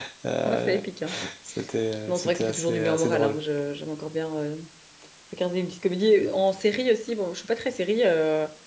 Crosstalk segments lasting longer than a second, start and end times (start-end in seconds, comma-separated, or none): 2.1-3.4